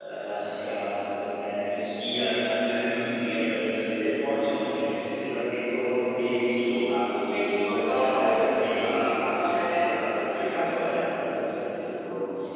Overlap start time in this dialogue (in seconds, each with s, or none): 7.3 s